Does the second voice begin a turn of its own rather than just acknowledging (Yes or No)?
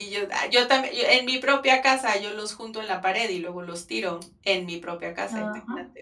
Yes